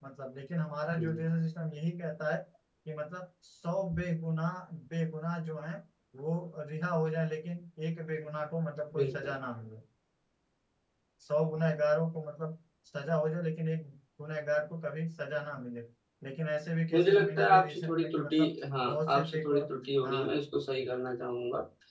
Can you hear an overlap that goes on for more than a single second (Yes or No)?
Yes